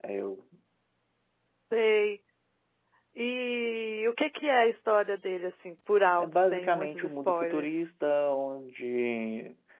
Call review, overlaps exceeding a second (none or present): present